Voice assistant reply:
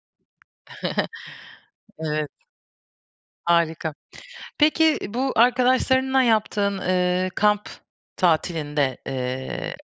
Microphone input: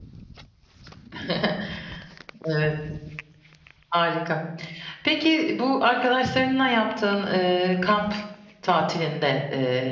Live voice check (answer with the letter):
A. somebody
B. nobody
B